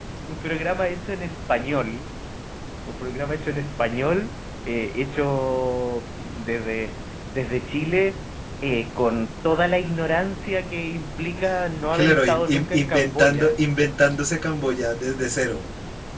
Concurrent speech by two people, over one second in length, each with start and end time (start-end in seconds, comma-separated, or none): 11.9-13.6